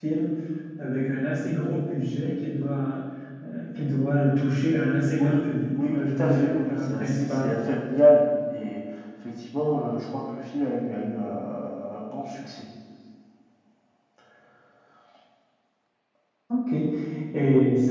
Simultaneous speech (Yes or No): Yes